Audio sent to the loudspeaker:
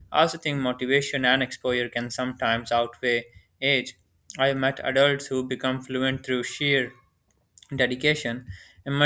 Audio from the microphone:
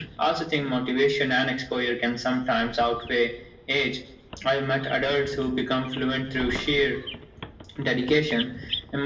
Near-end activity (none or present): none